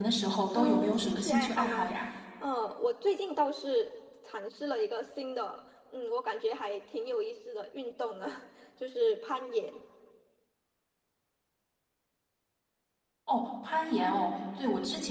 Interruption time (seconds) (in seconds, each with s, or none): 0.6 s